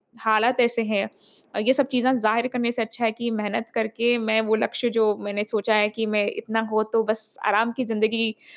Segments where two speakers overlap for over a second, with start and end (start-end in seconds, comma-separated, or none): none